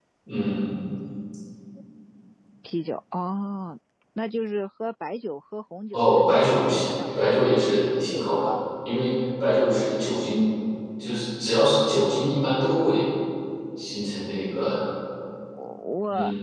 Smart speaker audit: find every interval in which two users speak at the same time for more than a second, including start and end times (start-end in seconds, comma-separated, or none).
5.9-8.5